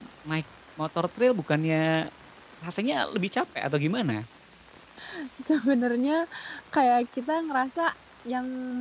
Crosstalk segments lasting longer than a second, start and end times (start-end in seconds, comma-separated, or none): none